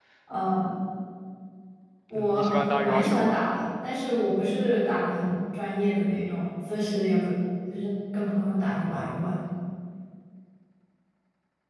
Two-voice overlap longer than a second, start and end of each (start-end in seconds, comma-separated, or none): 2.1-3.4